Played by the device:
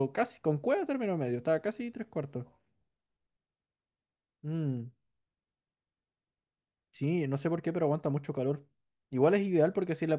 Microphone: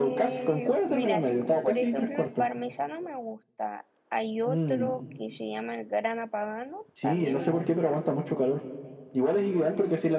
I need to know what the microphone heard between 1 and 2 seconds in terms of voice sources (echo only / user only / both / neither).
both